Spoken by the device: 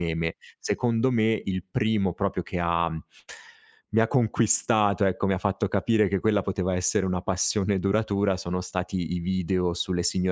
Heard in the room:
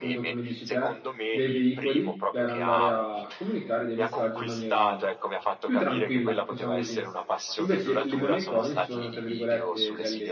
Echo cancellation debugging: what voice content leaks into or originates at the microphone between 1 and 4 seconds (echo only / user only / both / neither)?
both